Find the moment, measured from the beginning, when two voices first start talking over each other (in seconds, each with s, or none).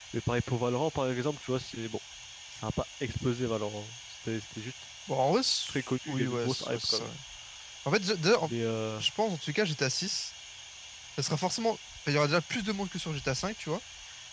5.7 s